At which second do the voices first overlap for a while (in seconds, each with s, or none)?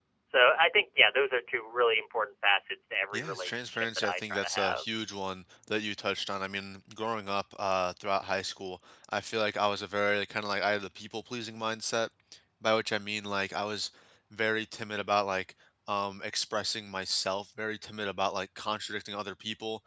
3.1 s